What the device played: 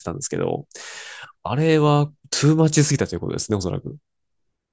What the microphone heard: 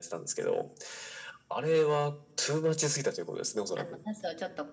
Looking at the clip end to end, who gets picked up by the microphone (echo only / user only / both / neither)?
both